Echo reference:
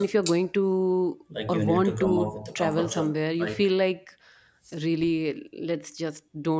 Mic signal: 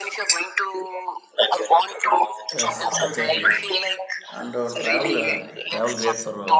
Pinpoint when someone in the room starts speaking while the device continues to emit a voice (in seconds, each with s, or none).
2.5 s